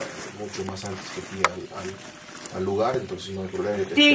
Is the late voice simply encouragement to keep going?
No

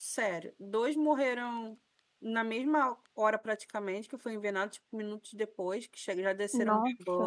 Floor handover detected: No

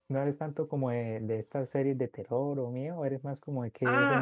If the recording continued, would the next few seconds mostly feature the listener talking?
Yes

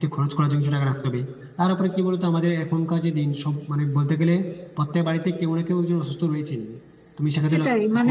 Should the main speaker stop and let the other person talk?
Yes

